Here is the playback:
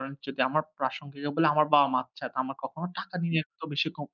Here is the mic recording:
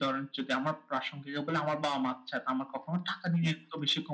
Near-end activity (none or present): none